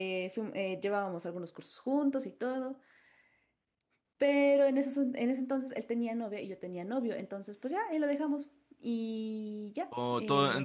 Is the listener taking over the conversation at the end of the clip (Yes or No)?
Yes